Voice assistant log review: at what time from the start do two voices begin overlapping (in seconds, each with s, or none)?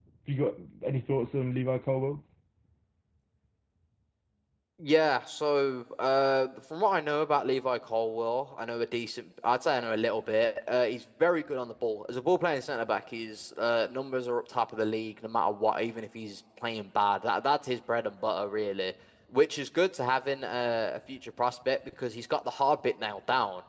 none